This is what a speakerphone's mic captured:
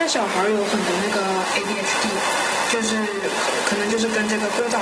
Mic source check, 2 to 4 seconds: echo only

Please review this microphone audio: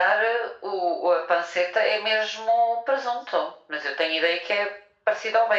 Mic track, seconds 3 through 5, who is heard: echo only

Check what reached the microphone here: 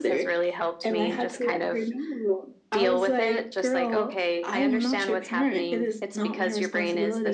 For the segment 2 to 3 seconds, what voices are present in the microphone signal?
echo only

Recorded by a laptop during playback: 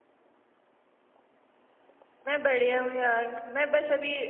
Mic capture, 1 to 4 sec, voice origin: user only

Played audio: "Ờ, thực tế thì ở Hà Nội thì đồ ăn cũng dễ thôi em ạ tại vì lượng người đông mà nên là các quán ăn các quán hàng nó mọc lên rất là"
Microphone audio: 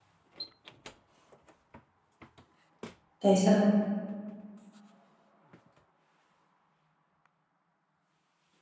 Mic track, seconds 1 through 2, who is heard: neither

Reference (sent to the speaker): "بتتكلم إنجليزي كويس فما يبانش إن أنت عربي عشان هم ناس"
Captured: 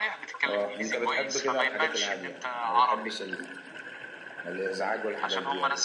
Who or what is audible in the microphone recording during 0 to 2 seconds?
both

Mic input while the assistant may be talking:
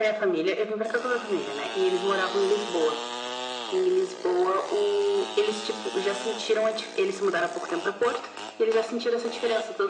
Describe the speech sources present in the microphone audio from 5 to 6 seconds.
echo only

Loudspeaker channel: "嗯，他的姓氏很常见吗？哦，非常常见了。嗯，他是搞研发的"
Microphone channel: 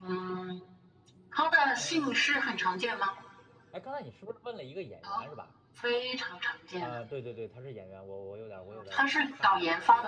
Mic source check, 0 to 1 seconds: echo only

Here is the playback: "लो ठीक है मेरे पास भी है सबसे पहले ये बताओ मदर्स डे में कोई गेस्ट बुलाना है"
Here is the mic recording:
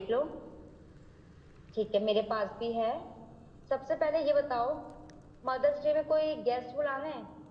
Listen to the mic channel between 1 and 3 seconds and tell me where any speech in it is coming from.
echo only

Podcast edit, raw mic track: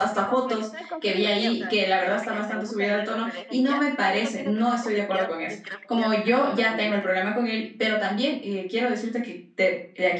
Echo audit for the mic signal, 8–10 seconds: user only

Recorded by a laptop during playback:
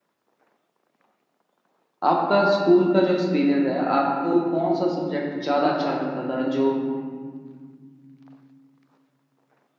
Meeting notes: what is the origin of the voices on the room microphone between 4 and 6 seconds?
user only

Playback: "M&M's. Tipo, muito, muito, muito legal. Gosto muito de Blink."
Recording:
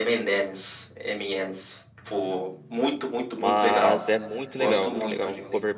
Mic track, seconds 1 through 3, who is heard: echo only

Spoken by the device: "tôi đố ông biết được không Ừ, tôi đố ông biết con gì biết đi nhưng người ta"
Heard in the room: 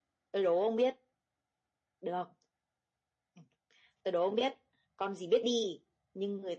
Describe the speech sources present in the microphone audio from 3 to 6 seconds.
echo only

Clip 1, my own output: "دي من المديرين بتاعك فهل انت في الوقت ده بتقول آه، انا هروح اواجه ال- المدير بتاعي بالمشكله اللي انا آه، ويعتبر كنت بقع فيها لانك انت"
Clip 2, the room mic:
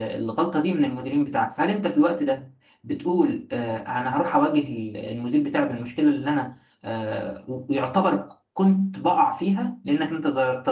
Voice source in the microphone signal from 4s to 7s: echo only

